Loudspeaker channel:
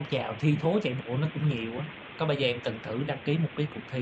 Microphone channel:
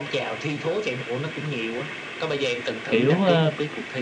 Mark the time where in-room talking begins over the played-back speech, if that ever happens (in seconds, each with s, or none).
2.9 s